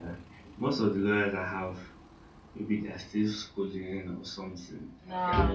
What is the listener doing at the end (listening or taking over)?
taking over